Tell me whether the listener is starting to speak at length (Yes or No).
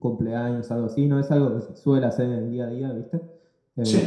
No